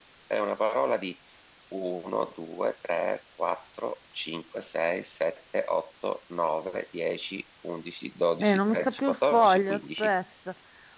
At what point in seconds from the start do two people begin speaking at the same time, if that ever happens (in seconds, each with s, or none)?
8.4 s